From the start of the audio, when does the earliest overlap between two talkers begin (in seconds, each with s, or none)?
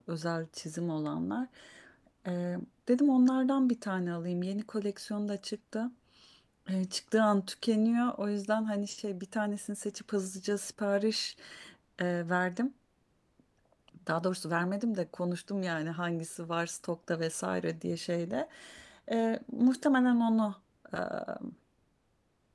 none